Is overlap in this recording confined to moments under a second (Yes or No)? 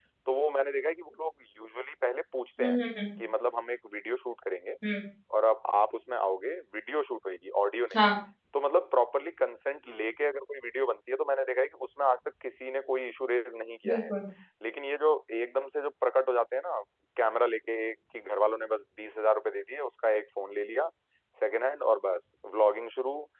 Yes